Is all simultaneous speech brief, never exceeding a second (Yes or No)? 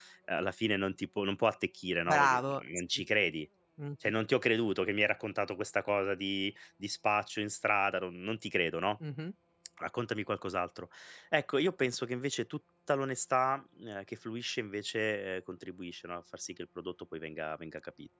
Yes